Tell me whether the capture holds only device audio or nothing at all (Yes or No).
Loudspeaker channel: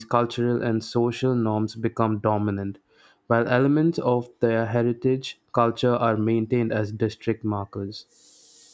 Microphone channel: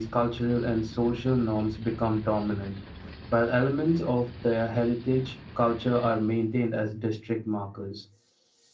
Yes